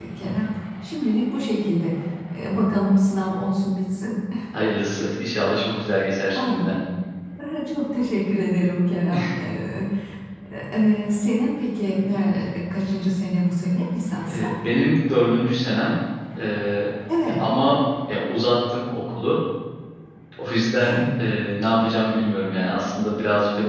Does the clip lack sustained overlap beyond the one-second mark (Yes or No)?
Yes